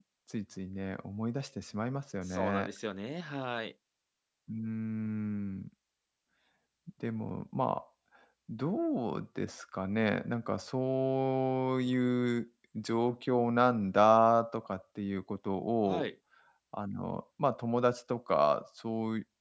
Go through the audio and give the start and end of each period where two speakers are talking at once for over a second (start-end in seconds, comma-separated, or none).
none